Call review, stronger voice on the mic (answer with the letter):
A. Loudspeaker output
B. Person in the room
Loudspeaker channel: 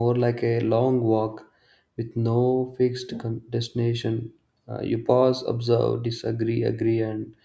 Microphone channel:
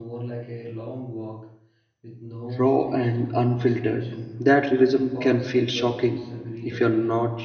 B